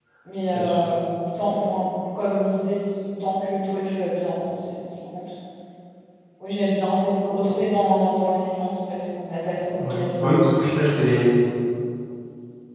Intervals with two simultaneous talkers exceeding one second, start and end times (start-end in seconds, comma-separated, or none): none